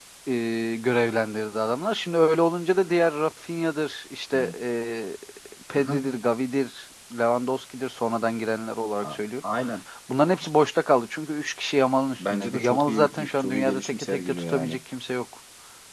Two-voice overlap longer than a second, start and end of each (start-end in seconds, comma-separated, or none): 12.2-14.8